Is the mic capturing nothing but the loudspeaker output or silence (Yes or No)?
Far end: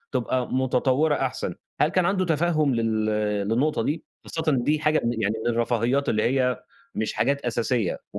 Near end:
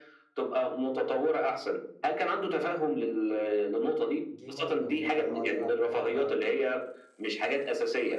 No